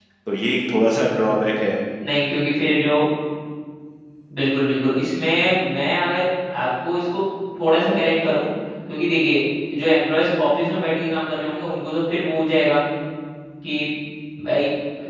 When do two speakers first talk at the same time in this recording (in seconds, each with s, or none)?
none